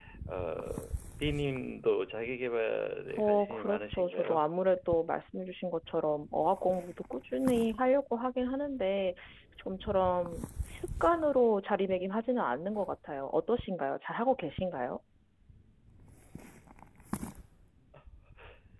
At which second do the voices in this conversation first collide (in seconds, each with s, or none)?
3.2 s